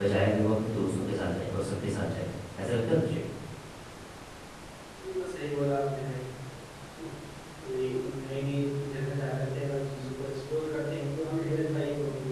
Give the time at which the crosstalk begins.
none

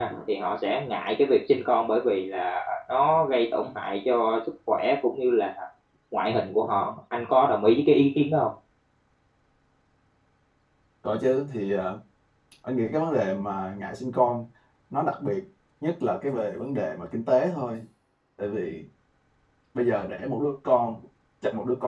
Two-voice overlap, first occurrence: none

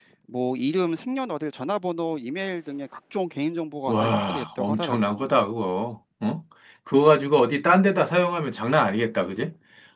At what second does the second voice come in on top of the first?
4 s

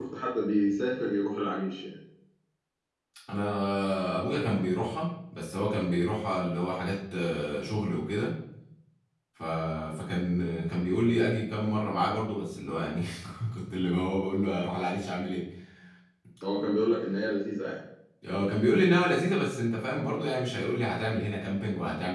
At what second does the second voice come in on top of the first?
none

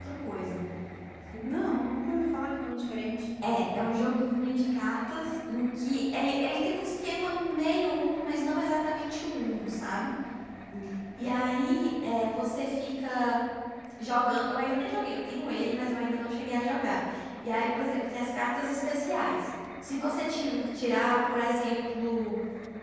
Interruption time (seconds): none

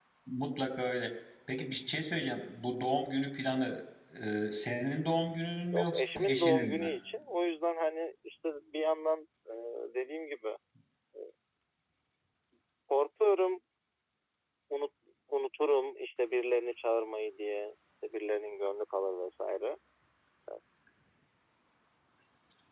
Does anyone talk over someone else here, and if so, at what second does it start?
6 s

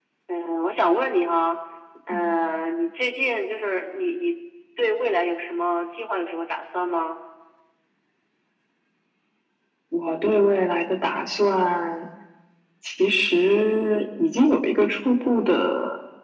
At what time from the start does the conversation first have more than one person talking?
none

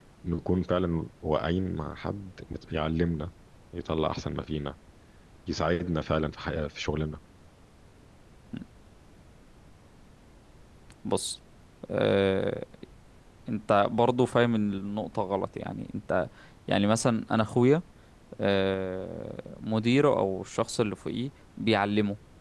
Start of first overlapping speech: none

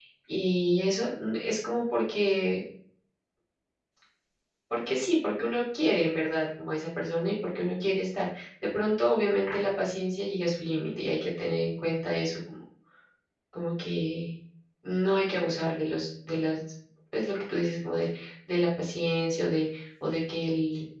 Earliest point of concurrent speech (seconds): none

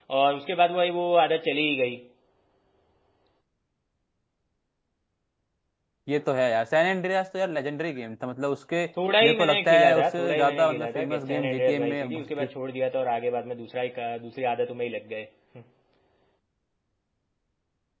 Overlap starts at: 9 s

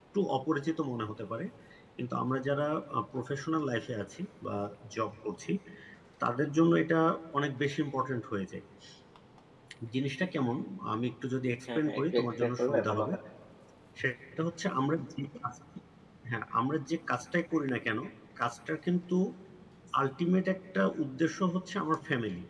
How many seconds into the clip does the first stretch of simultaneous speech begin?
12 s

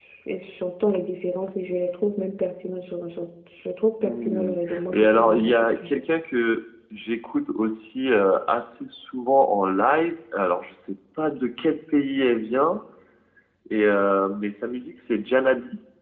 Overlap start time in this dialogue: 4 s

